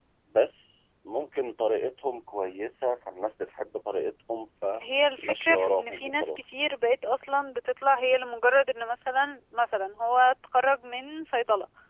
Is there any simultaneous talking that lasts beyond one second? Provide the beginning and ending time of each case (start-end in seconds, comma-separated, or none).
5.2-6.6